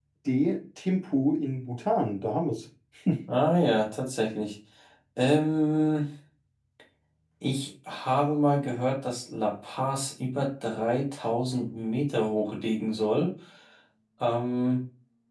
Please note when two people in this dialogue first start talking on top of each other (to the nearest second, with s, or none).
none